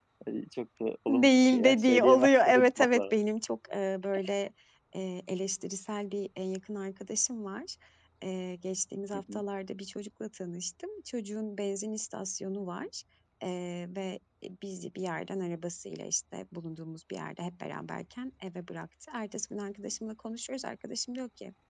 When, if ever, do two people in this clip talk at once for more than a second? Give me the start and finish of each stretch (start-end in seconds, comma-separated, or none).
1.1-3.1